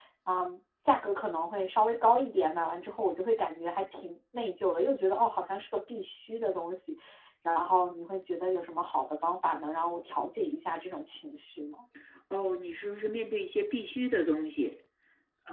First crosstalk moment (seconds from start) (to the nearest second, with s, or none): none